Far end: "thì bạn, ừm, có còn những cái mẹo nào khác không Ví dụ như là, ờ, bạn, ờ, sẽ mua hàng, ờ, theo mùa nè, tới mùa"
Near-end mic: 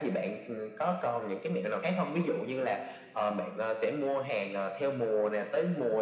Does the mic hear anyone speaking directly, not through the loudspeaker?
No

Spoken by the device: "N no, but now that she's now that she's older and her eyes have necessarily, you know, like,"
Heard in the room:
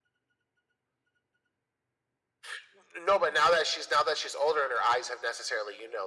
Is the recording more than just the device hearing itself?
No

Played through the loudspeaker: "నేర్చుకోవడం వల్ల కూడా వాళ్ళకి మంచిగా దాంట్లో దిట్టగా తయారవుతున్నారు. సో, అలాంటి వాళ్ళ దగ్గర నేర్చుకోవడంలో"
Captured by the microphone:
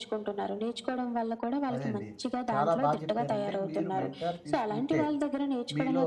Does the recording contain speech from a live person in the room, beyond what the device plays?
Yes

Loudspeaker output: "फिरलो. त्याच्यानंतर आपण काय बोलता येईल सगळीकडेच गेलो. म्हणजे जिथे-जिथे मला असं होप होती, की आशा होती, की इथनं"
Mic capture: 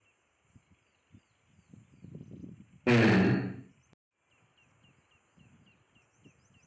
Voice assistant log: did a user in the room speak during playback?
Yes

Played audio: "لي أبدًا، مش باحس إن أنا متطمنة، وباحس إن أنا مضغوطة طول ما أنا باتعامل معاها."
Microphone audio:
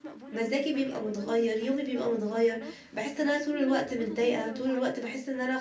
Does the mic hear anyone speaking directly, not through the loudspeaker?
Yes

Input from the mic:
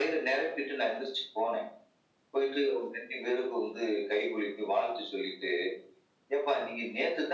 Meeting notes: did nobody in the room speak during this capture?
Yes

